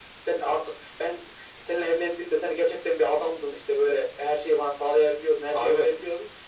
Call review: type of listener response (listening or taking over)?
listening